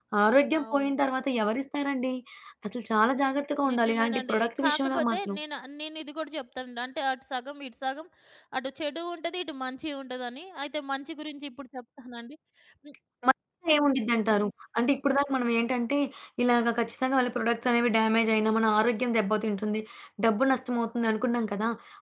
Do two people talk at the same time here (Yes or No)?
Yes